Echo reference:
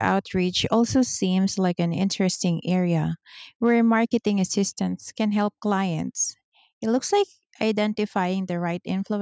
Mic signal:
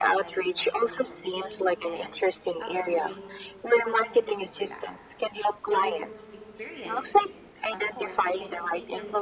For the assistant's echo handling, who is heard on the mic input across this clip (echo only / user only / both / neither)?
both